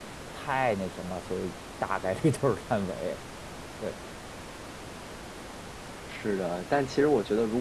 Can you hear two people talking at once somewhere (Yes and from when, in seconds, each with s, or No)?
No